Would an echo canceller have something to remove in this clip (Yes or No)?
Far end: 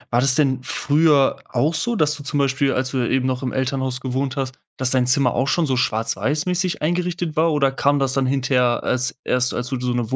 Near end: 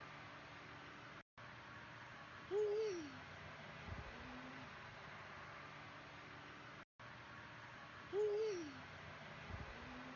No